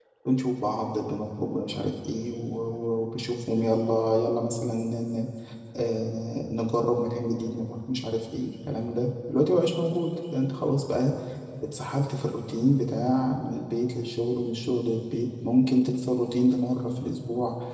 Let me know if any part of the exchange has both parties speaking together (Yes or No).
No